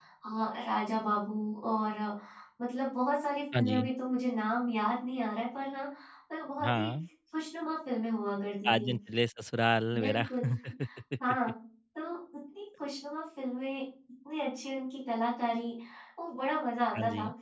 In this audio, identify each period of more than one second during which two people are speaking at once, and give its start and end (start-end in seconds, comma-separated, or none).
none